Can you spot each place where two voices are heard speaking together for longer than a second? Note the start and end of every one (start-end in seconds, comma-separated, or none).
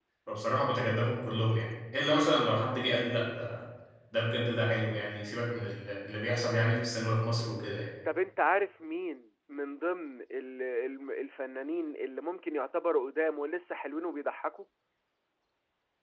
none